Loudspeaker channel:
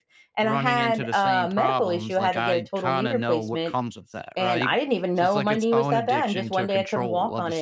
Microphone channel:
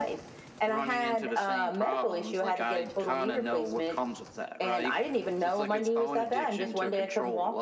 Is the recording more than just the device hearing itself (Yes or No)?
No